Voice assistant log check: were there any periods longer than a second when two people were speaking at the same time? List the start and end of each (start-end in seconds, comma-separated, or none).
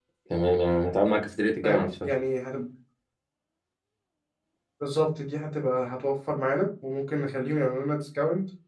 none